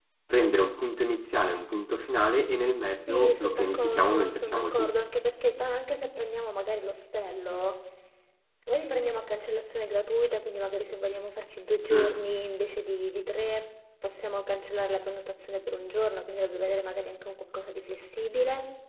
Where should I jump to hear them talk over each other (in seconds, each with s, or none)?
2.9 s